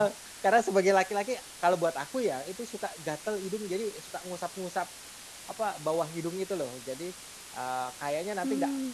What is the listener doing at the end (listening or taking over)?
listening